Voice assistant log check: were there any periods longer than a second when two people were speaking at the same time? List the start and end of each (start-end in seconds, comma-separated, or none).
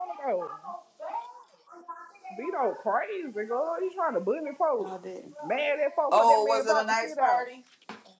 6.1-7.5